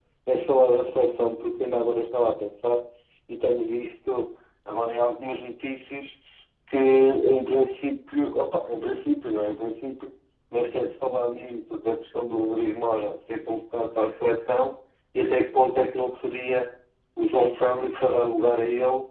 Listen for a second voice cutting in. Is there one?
No

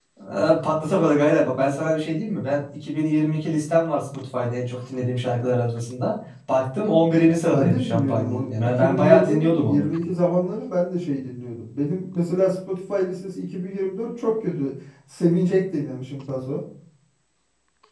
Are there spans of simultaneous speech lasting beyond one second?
Yes, from 7.2 s

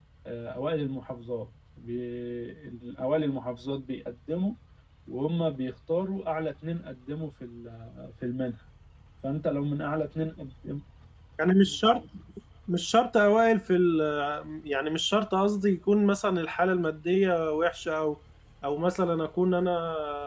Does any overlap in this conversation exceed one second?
No

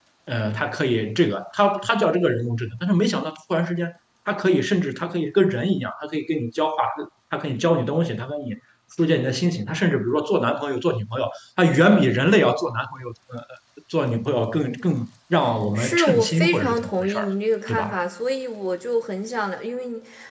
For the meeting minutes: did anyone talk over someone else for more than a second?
Yes, from 15.8 s

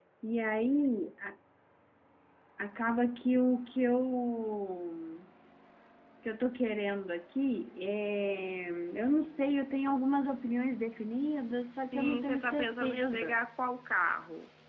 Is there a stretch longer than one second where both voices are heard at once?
Yes, from 11.9 s

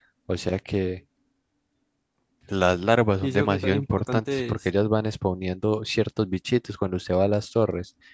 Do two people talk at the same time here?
Yes, from 3.2 s

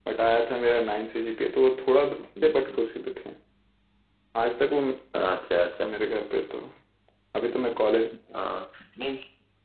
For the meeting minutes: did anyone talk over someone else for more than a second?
No

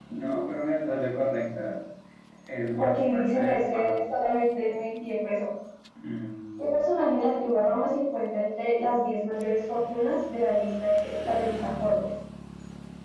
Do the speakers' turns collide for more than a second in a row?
Yes, from 2.8 s

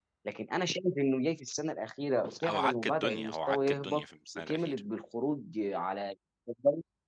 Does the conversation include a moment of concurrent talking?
Yes, from 2.4 s

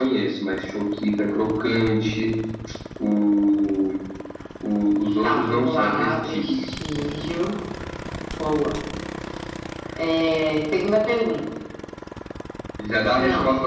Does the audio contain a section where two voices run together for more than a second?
Yes, from 5.2 s

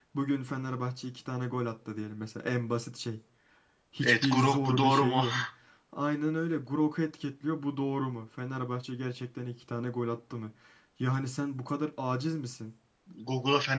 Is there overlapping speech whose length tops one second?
Yes, from 4.0 s

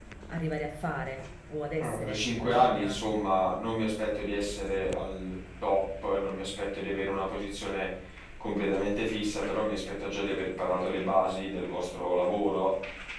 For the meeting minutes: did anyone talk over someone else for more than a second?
Yes, from 1.8 s

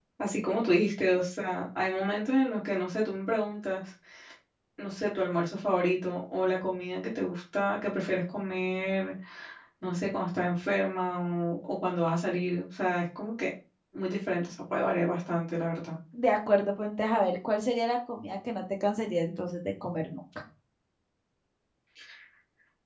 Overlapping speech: No

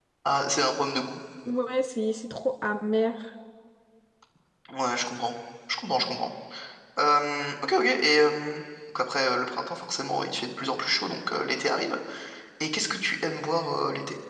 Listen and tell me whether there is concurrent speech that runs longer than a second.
No

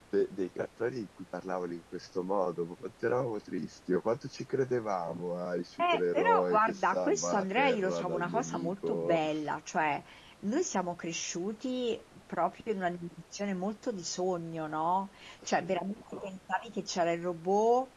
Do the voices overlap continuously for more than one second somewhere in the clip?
Yes, from 5.8 s

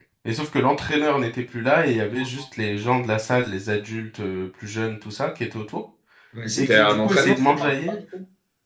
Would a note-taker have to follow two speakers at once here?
Yes, from 6.6 s

